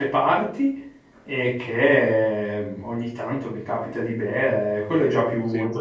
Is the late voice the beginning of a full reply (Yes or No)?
No